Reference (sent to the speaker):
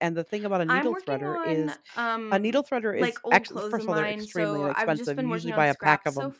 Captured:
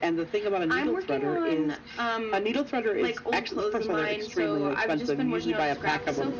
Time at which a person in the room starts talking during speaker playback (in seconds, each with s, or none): none